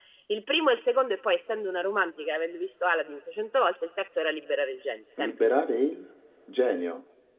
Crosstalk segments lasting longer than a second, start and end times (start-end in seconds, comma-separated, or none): none